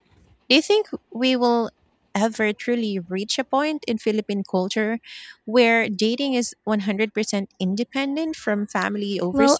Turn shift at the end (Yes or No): Yes